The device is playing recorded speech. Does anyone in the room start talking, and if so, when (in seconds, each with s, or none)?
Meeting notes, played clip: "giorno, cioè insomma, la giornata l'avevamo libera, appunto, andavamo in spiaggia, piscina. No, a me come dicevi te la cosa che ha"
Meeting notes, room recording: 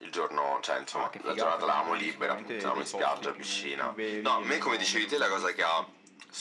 0.9 s